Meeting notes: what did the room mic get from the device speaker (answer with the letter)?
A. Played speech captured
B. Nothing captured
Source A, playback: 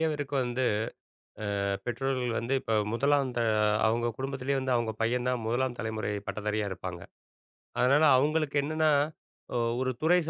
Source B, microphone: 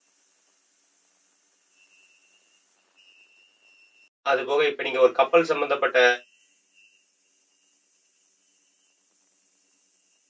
B